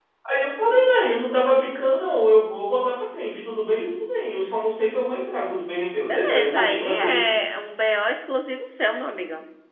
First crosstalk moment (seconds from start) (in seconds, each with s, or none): 6.1 s